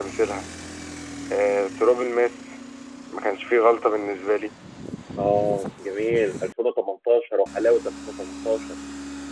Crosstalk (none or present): none